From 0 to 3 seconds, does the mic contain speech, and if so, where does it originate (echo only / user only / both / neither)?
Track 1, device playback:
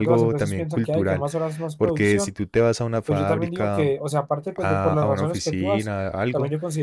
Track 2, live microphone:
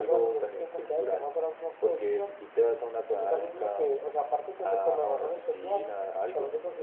echo only